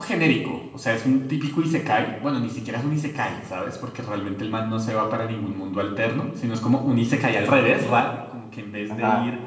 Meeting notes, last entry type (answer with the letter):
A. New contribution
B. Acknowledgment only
B